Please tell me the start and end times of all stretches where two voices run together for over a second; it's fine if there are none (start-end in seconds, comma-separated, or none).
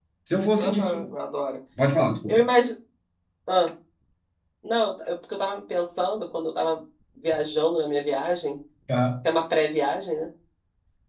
none